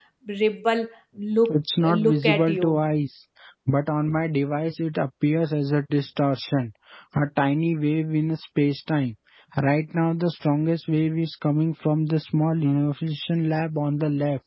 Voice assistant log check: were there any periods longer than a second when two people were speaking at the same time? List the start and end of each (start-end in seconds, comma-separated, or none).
1.5-2.8